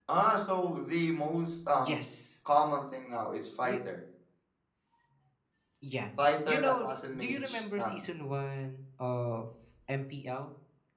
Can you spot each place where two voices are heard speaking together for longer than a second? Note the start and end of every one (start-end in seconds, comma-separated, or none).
6.5-8.0